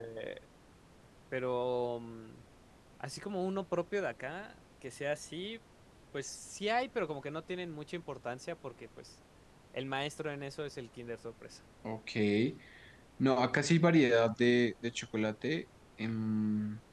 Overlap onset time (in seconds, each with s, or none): none